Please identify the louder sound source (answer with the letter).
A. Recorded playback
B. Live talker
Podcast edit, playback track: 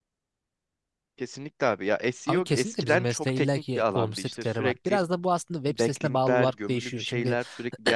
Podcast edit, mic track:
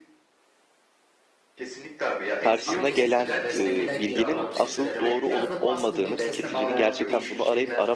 B